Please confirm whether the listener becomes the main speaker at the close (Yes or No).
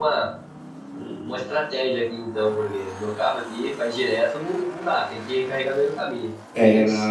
Yes